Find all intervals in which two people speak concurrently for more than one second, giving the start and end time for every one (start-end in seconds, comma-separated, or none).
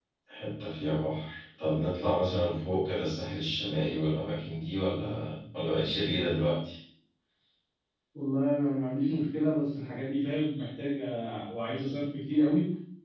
none